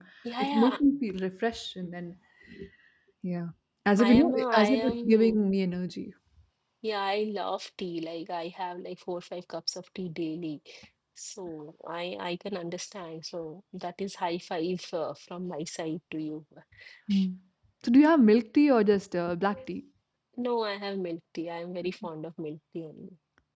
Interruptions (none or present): present